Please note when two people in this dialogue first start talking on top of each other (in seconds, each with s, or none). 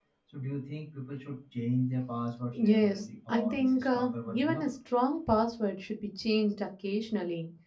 2.5 s